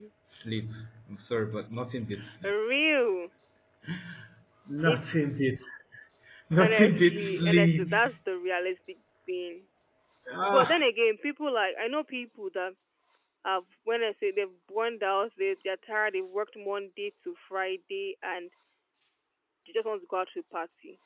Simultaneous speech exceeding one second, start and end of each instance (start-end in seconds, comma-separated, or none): 6.6-7.9